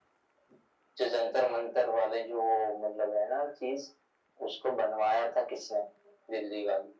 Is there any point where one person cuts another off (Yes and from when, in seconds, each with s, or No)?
No